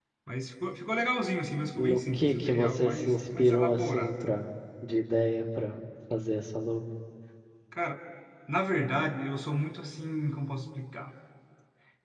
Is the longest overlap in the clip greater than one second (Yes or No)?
Yes